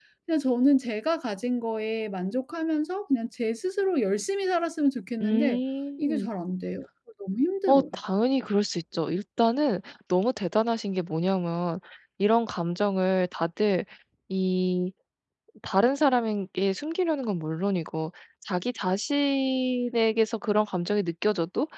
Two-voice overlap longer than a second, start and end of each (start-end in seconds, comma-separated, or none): none